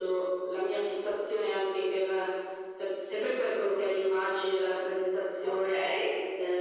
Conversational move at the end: listening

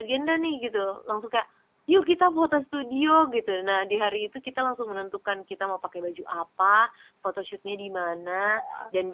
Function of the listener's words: listening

